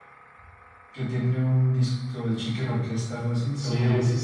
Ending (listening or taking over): taking over